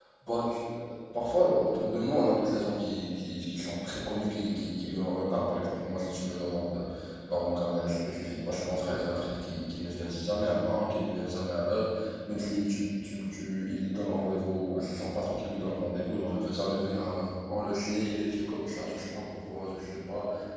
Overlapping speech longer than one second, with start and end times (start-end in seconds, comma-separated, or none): none